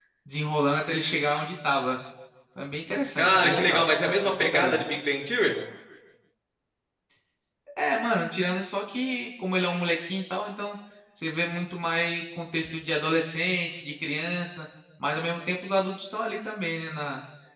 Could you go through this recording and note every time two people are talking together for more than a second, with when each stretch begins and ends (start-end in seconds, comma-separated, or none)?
3.2-4.8